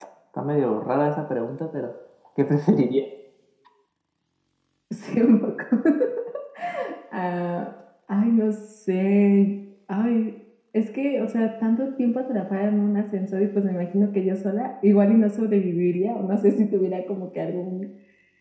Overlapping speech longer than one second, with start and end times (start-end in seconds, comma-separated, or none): none